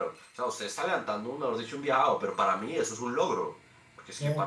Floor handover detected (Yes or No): No